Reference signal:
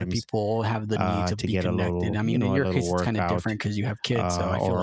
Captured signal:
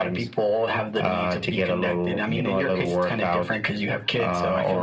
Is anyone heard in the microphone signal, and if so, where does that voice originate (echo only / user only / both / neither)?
echo only